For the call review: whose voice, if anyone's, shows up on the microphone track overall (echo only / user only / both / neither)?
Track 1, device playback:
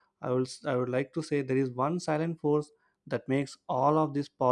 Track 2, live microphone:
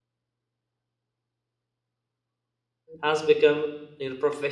user only